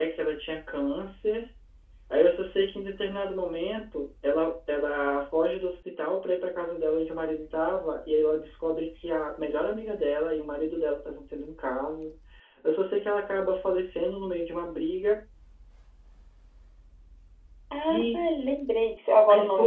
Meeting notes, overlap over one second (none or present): none